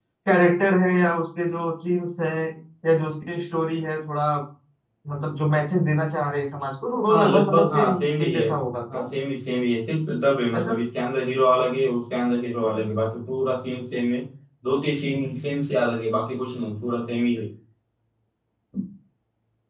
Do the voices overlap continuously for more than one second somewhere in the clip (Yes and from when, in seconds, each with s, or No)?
Yes, from 7.1 s